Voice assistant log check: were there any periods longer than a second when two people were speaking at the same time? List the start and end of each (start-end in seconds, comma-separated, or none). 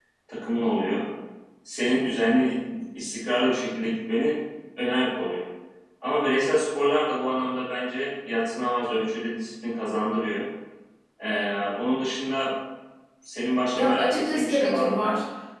13.8-15.0